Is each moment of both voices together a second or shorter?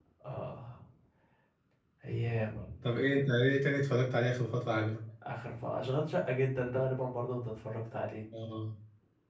Yes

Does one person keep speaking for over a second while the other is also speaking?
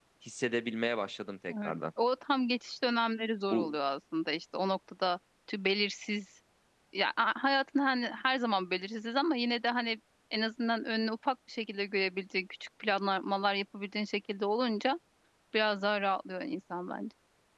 No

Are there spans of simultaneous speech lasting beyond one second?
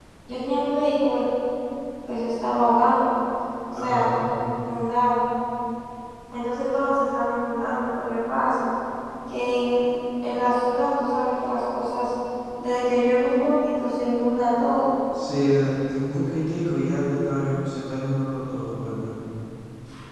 No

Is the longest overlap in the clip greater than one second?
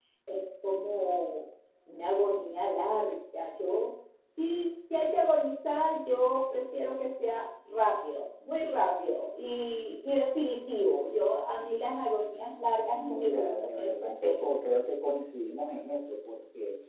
Yes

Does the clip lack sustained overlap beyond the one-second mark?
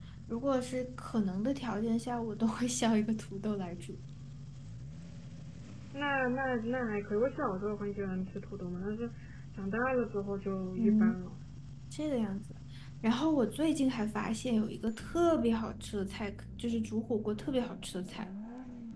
Yes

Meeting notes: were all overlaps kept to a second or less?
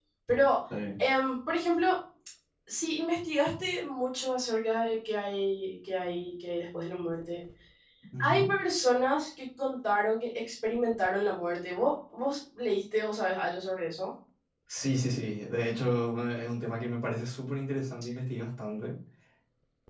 Yes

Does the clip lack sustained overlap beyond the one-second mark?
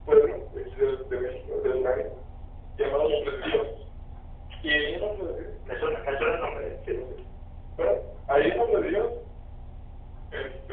Yes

